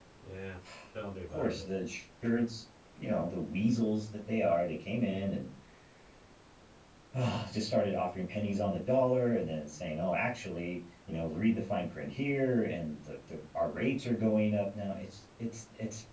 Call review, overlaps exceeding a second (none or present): none